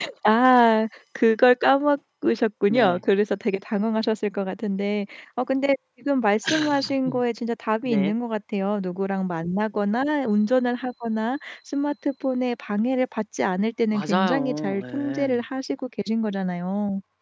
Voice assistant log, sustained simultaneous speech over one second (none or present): present